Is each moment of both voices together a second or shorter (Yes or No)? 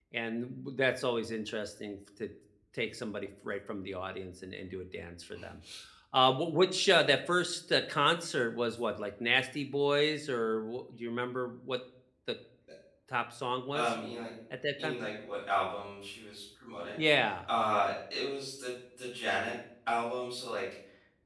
Yes